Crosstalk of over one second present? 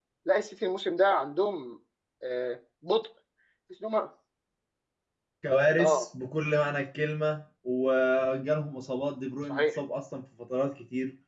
No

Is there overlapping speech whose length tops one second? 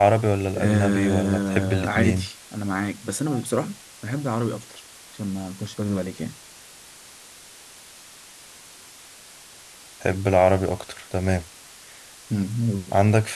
Yes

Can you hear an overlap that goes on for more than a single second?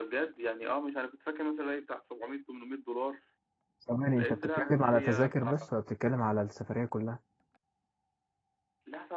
Yes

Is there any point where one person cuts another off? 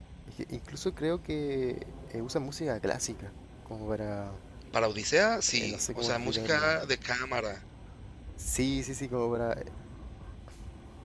Yes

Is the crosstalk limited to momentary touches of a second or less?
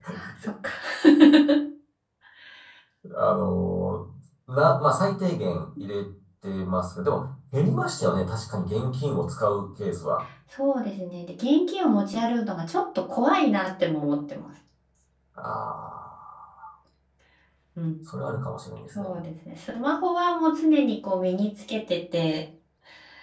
Yes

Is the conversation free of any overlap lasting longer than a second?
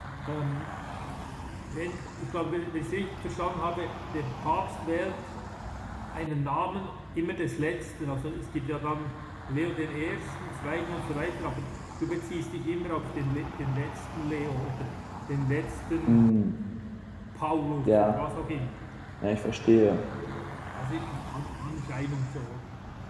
Yes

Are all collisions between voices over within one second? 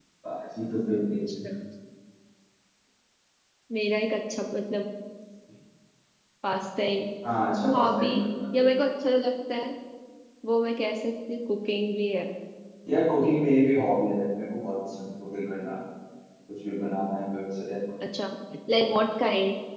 Yes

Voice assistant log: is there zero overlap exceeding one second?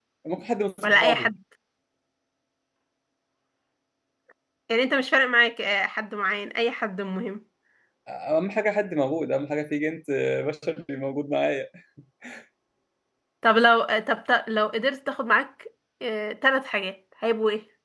Yes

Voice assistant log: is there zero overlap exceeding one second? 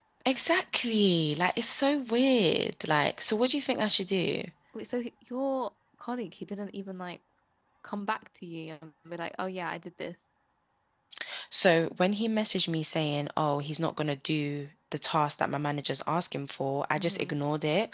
Yes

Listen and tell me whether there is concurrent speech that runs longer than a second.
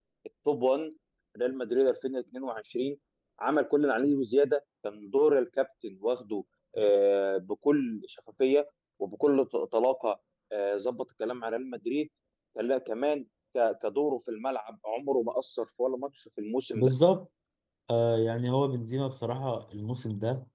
No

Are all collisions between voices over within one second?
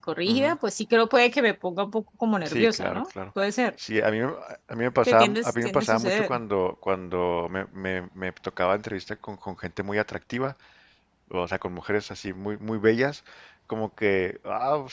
No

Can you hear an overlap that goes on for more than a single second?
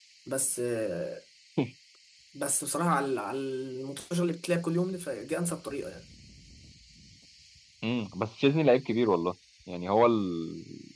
No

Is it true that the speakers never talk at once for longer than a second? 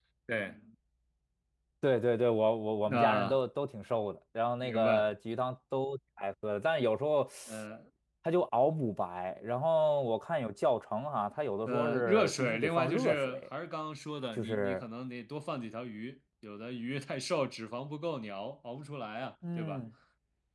No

